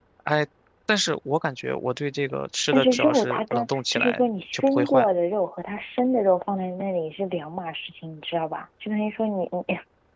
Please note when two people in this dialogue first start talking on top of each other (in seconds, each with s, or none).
2.7 s